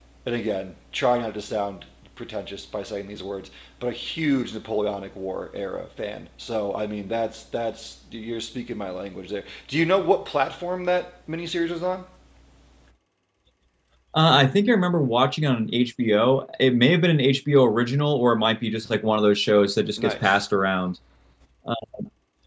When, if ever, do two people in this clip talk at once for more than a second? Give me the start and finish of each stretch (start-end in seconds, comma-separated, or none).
none